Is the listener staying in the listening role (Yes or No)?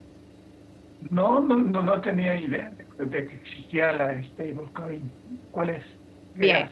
No